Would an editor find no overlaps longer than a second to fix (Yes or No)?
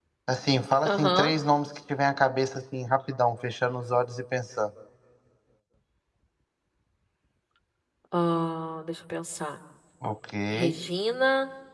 Yes